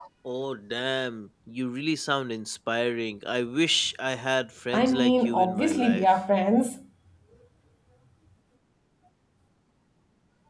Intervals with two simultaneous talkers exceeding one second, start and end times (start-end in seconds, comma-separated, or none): 4.7-6.1